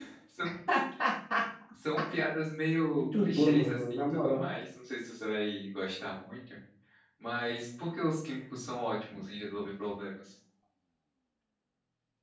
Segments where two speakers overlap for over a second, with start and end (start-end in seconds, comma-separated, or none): 2.9-4.4